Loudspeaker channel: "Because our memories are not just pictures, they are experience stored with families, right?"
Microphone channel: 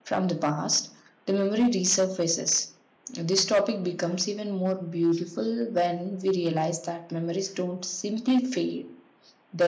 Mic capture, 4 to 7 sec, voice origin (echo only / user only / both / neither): user only